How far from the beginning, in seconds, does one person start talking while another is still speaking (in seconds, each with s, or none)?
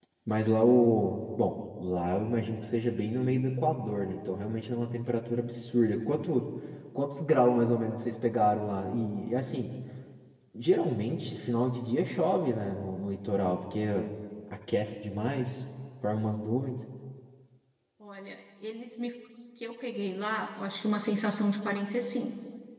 none